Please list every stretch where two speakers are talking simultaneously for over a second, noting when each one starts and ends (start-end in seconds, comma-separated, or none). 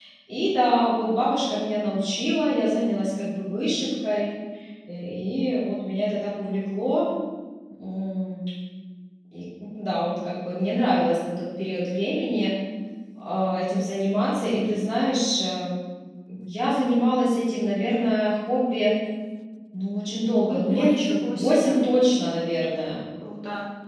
20.5-21.8